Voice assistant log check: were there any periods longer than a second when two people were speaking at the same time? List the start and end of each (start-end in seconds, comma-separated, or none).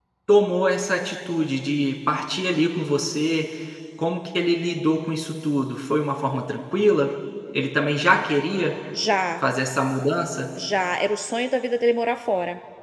none